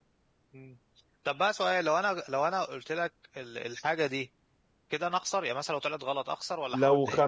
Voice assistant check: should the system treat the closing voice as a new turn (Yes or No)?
Yes